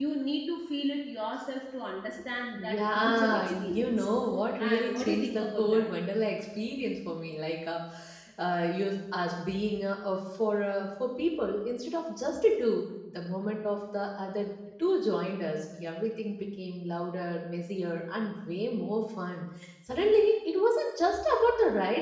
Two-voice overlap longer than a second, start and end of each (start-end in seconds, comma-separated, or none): 2.5-4.0, 4.6-5.9